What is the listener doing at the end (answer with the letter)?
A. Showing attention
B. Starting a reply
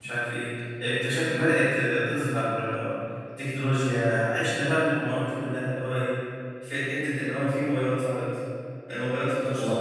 A